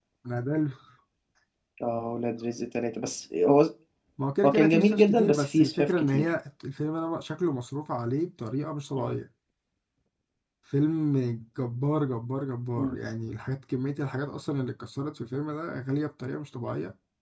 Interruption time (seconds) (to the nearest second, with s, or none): 4 s